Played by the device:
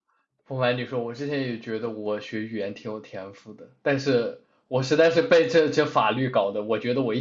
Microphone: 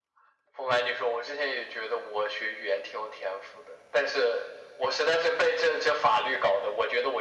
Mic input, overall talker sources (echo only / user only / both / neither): echo only